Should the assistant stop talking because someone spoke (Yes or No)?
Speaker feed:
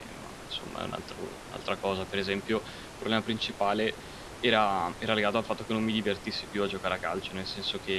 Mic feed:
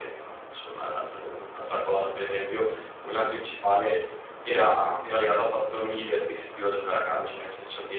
No